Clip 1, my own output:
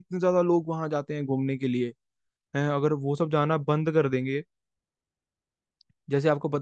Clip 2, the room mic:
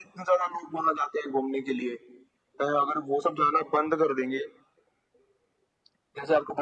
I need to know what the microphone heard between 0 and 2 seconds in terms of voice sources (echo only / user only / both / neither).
echo only